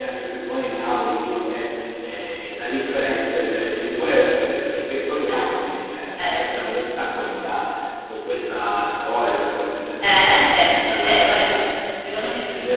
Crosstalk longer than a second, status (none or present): present